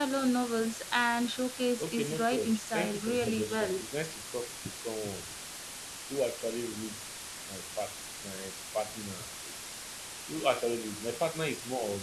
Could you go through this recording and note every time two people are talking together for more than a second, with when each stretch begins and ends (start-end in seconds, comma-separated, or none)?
1.8-3.8